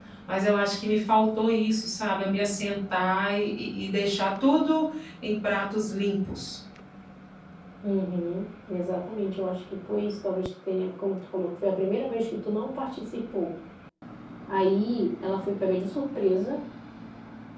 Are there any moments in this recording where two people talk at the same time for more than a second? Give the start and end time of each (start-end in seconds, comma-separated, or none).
none